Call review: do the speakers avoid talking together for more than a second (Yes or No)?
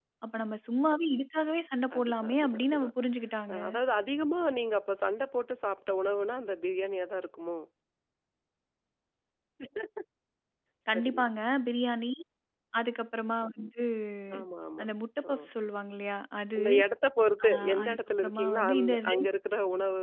No